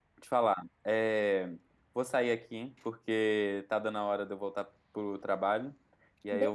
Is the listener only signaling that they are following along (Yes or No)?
Yes